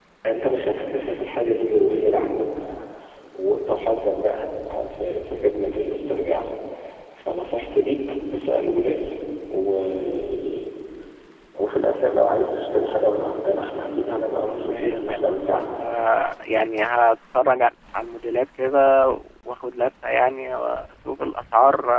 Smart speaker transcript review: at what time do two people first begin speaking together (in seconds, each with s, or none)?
14.4 s